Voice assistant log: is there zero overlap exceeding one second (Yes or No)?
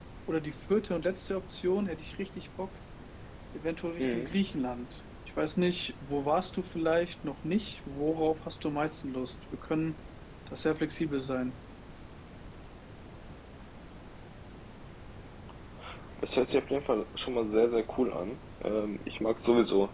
Yes